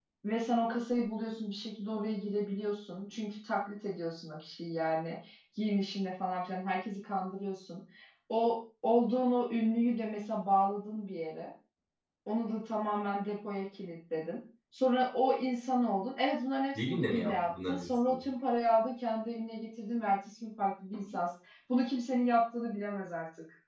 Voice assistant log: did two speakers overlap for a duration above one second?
Yes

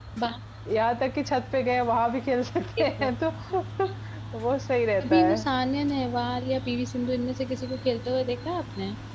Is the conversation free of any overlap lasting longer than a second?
Yes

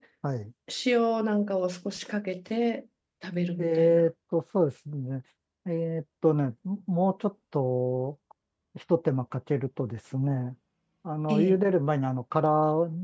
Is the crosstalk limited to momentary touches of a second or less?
Yes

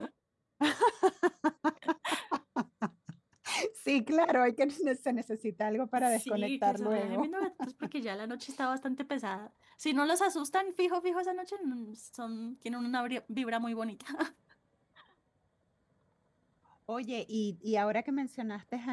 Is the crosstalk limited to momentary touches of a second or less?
No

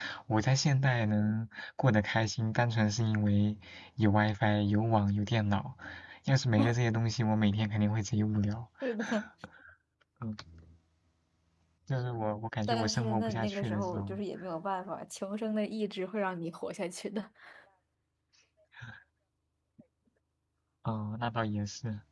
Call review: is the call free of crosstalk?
No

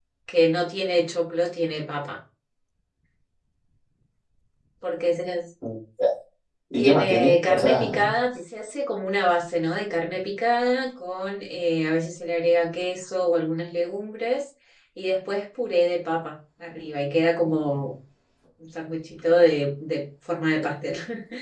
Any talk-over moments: Yes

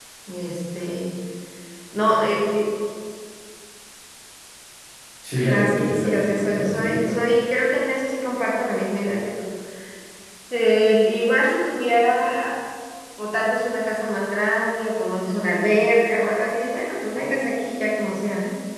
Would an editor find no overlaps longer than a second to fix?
No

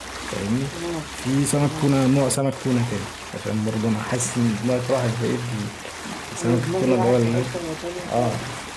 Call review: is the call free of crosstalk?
No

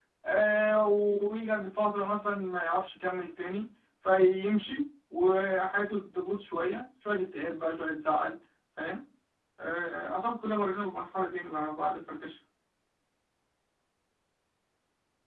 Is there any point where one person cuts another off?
No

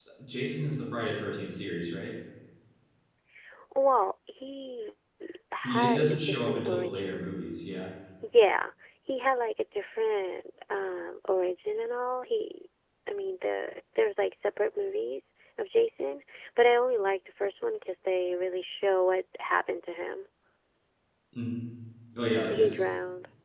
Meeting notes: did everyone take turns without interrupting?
No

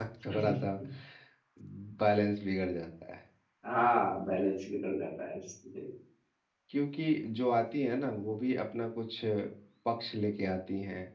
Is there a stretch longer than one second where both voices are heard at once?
No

